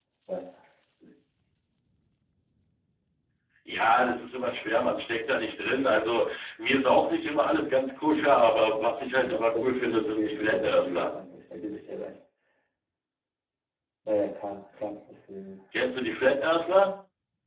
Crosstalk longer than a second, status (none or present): present